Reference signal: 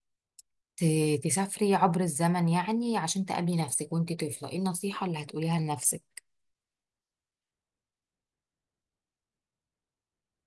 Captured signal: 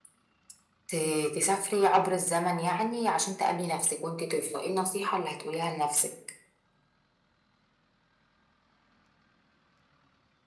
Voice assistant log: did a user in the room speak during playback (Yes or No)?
No